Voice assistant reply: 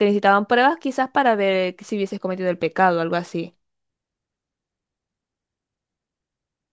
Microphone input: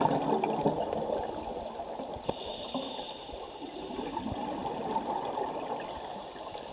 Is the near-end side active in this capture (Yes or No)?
No